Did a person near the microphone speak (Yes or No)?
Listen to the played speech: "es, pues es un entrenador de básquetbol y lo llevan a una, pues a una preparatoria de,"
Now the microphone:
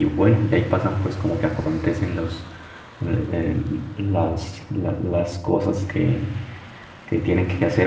Yes